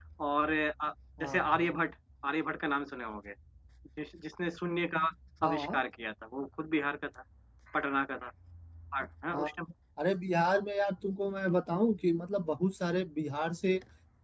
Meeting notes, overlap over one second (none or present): none